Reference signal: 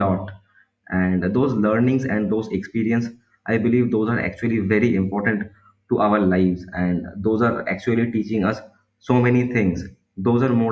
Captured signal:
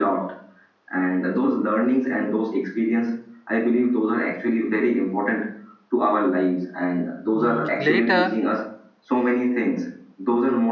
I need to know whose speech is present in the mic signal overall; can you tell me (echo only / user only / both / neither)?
both